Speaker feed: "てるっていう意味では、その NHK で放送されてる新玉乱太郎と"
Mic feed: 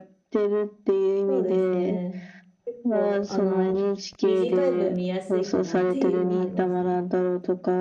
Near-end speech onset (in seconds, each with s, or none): 1.3 s